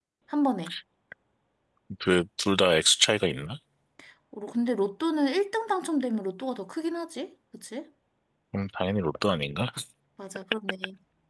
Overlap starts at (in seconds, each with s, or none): none